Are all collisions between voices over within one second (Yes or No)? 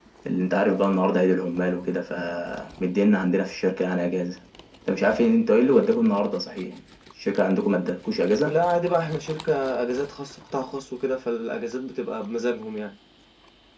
Yes